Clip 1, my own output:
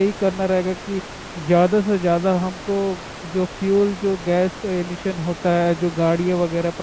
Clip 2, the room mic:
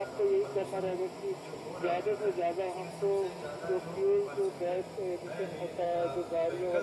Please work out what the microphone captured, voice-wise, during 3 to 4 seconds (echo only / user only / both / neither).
both